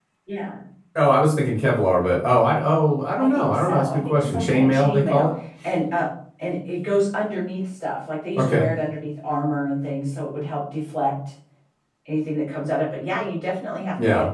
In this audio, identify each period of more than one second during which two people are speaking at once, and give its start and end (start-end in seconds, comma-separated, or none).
3.2-5.3